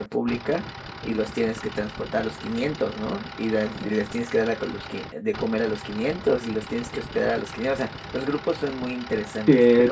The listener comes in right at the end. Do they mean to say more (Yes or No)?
Yes